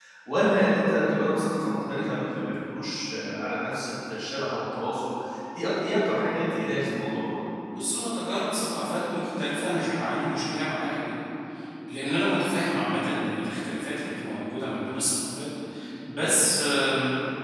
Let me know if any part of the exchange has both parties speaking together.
No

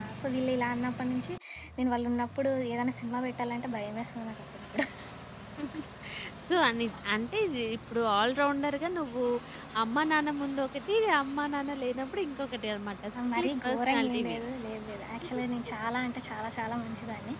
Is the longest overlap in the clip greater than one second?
Yes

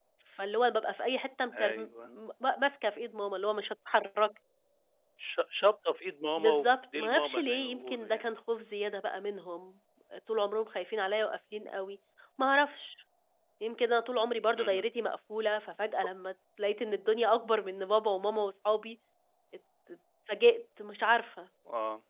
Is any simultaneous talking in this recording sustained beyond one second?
Yes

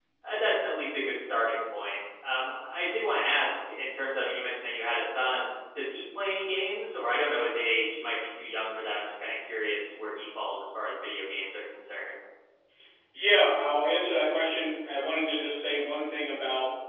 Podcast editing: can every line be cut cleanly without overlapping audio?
Yes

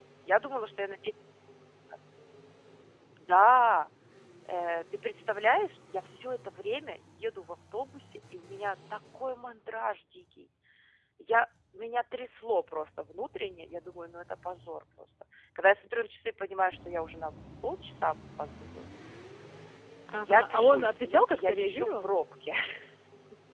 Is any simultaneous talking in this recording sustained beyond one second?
Yes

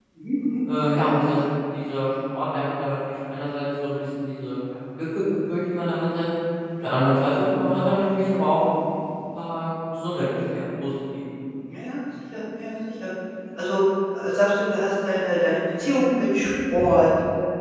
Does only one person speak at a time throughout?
Yes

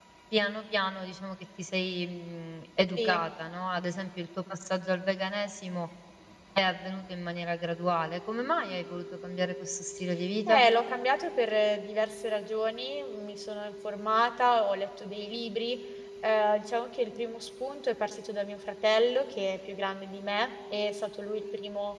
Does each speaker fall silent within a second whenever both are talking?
Yes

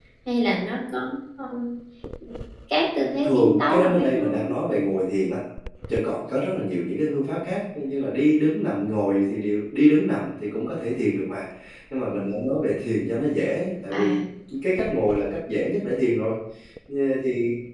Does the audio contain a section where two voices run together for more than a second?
Yes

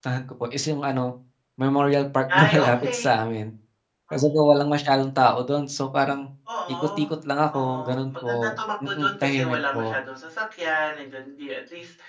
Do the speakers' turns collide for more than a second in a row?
Yes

